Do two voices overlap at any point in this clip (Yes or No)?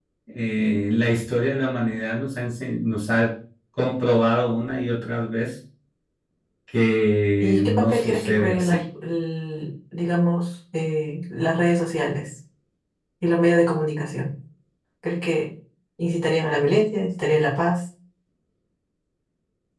Yes